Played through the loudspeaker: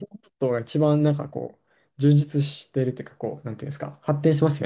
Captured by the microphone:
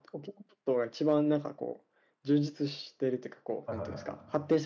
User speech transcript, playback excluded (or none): と。はいはいはい。